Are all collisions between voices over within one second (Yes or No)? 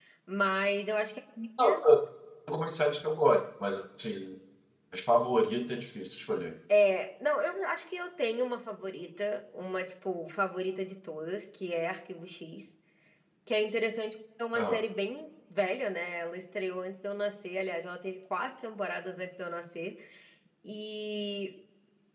Yes